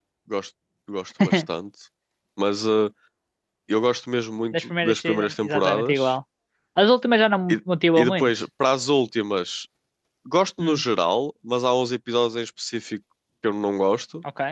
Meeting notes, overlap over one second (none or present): present